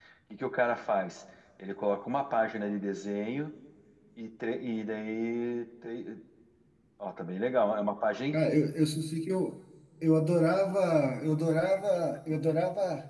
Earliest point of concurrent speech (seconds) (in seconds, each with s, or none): none